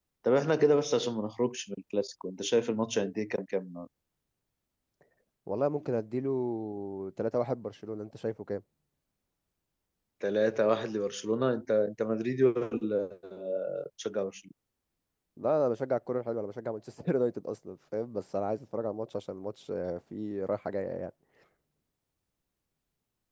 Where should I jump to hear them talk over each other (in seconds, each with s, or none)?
none